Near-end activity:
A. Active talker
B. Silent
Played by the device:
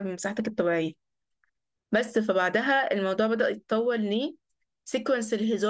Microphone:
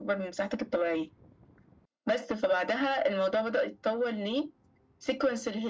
B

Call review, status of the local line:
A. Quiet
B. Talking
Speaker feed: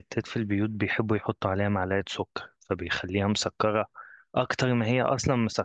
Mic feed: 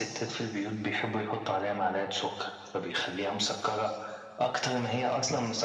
A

